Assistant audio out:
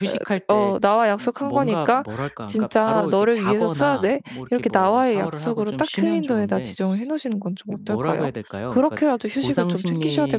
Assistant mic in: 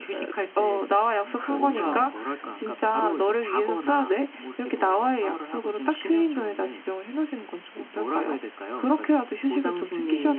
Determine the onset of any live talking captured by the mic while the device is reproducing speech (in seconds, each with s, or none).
1.3 s